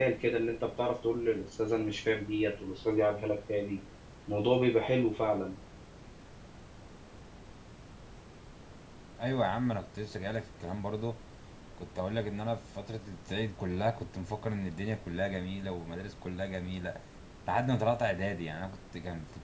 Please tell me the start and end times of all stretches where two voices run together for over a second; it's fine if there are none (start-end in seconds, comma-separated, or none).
none